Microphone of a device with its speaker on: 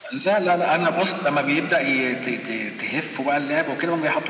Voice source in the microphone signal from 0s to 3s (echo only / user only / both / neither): echo only